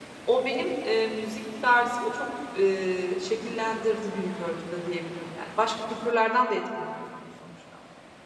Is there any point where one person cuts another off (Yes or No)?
No